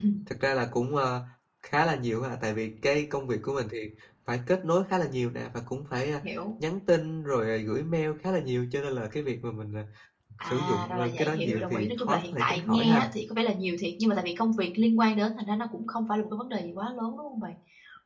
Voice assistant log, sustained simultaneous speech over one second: present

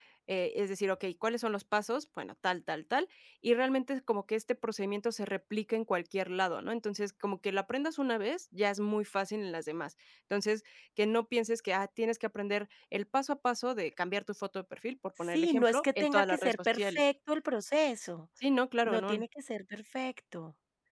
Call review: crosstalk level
present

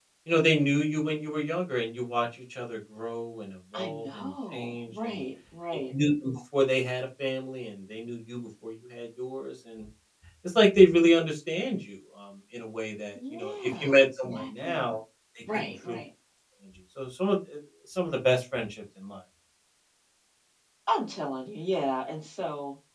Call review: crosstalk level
present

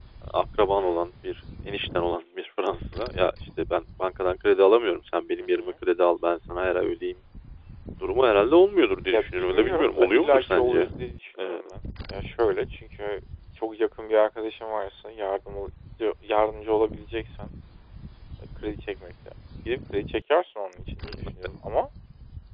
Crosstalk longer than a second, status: present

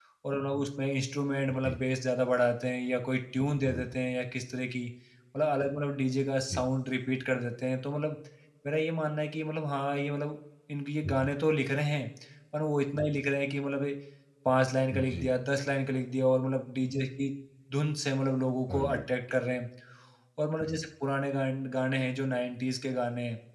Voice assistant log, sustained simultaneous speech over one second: none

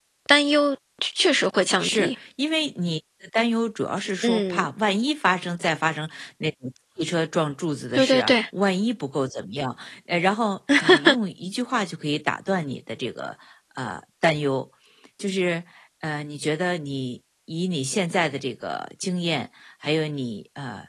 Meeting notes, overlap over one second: none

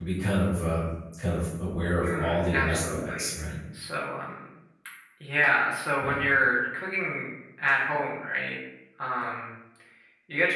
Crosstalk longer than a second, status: present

